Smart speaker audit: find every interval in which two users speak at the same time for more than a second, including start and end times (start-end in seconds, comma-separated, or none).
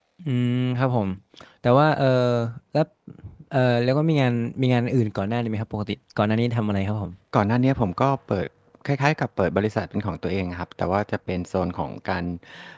none